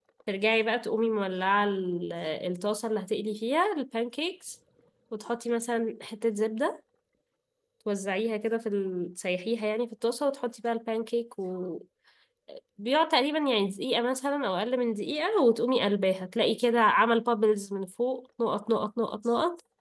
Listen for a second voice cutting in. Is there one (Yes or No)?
No